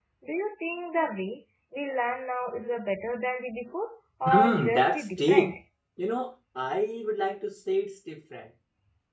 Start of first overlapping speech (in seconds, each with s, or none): 4.2 s